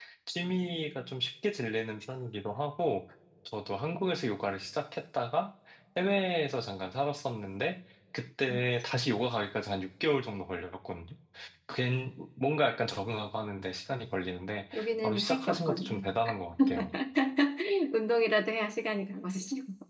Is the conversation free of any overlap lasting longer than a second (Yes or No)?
No